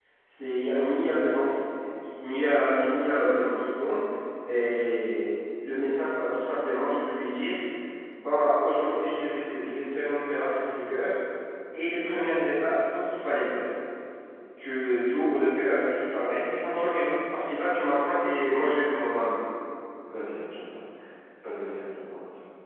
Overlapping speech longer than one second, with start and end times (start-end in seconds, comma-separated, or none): none